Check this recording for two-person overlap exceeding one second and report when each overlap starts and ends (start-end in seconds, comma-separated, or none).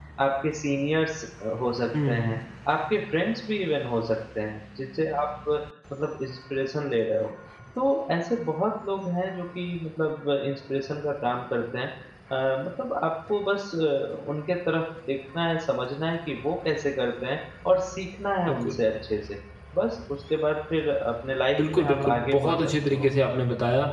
21.6-23.1